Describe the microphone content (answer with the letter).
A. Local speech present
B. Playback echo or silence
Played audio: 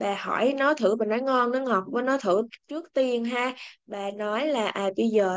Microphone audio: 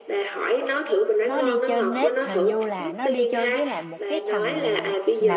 A